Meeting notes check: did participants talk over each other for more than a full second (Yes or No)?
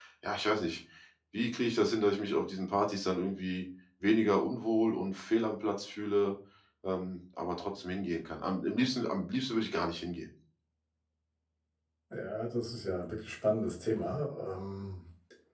No